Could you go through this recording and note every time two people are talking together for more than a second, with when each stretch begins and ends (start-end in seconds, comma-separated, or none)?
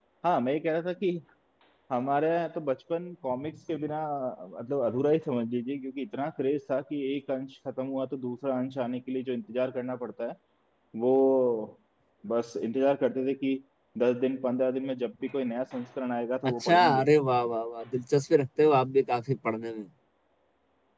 none